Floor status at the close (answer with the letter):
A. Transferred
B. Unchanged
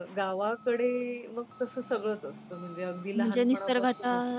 A